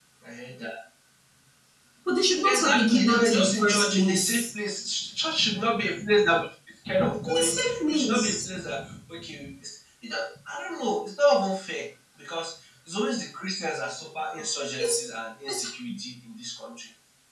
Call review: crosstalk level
present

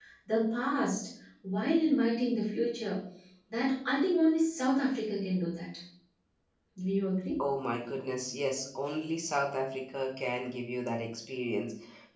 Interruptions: none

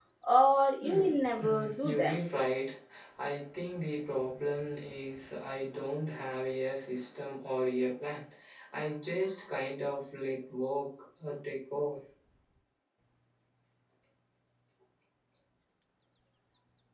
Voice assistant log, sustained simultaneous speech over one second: present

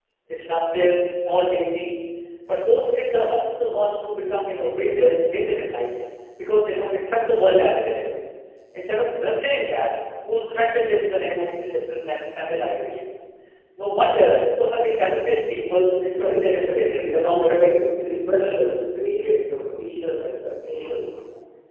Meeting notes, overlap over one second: present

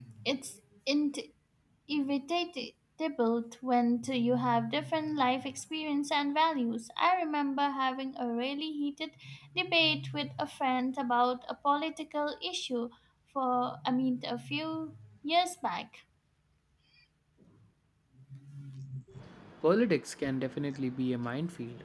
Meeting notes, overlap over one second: none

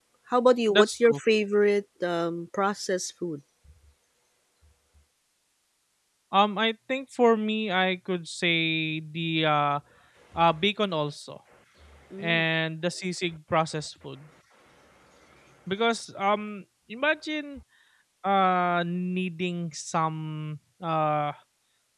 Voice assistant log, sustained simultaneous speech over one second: none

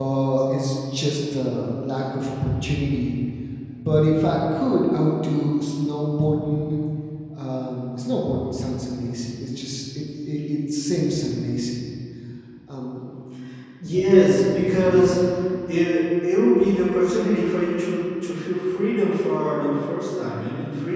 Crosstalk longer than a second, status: none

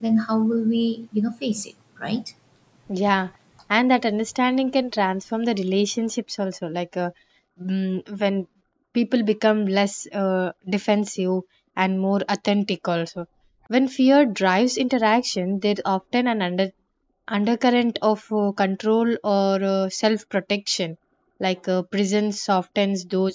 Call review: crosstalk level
none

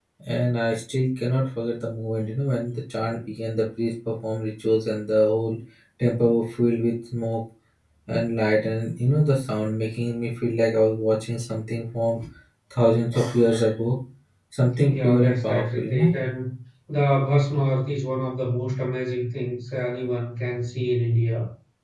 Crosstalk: present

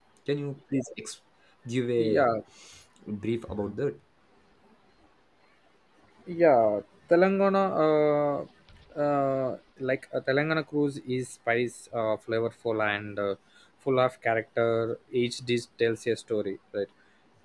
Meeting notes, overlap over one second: none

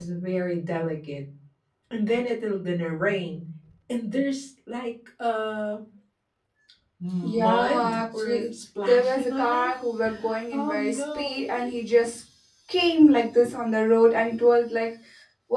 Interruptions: present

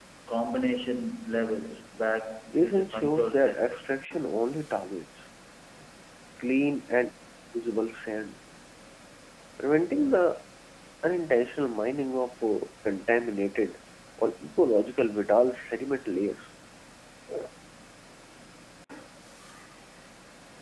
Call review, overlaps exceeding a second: present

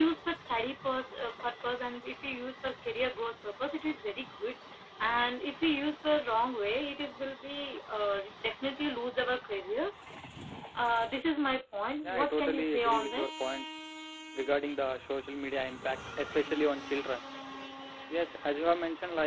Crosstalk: present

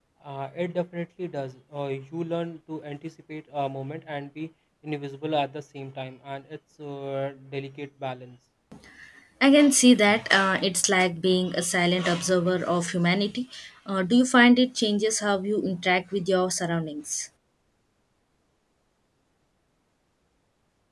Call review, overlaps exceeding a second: none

